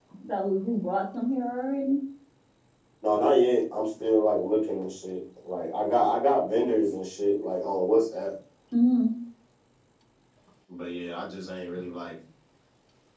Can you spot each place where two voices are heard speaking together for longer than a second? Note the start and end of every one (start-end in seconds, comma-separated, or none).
none